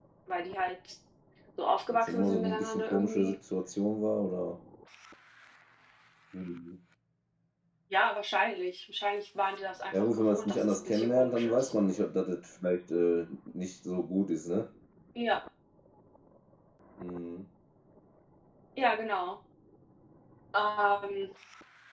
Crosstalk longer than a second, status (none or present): present